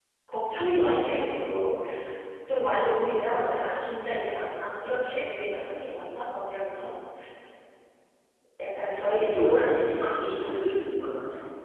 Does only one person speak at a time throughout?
No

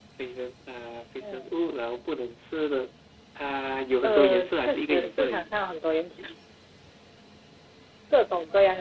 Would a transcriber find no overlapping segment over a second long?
No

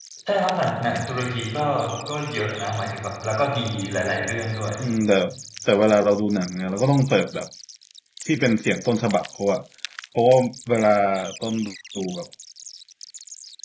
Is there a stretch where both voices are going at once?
No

